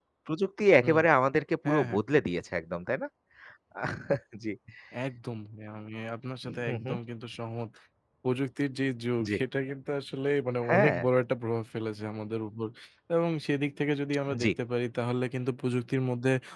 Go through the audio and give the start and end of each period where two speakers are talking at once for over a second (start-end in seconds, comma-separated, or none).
none